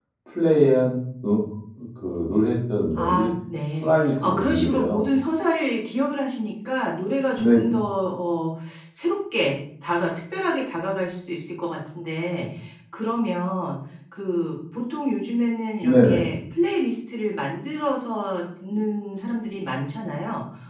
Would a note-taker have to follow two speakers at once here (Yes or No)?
Yes